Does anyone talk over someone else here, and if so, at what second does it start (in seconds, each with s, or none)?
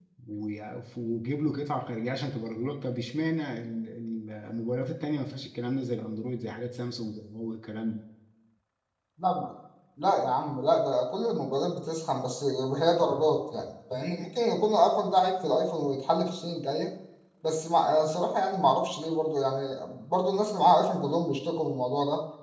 none